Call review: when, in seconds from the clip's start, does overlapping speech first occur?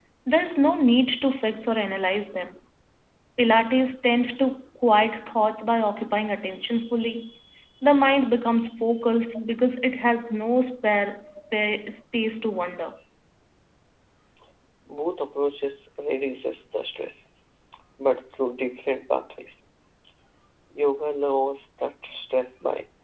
none

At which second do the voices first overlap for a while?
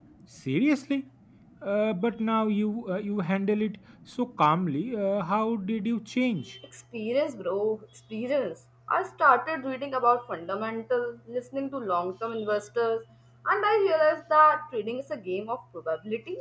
none

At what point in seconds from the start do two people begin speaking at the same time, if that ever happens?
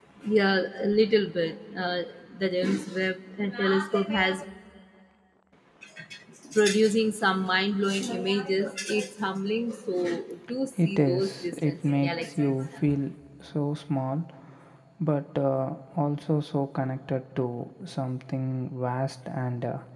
10.8 s

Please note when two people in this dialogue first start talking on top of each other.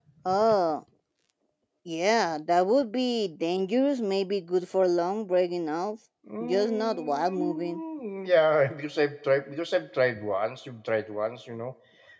6.4 s

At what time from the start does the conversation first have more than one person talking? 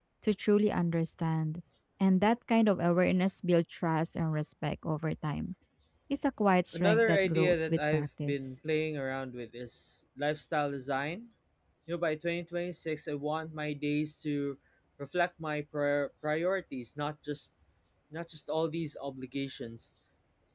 6.7 s

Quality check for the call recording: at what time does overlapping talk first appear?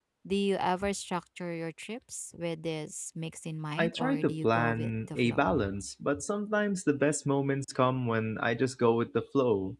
3.8 s

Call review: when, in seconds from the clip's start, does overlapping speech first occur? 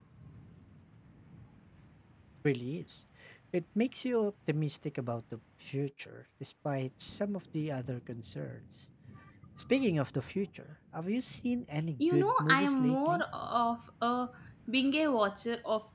12.0 s

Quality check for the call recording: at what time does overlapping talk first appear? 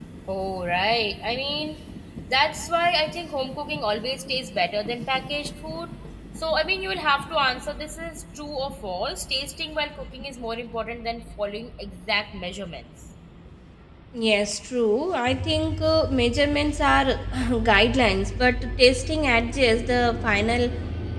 none

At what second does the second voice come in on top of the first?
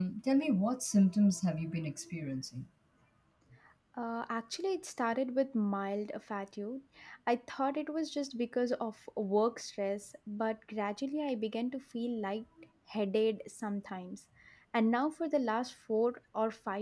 none

